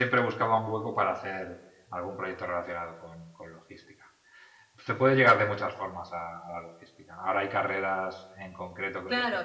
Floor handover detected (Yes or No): Yes